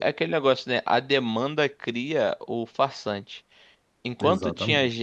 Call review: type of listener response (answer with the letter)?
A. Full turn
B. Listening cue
B